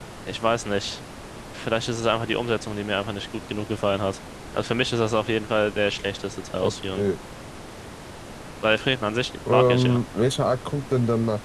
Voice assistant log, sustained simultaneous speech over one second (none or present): none